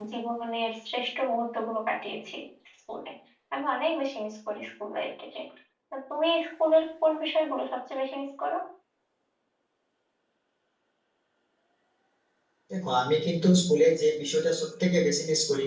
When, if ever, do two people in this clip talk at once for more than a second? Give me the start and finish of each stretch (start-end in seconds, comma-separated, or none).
none